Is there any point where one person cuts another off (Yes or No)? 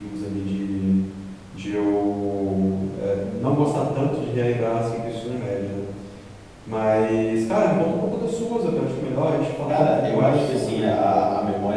Yes